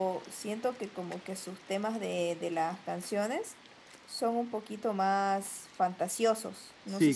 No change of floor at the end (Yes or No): No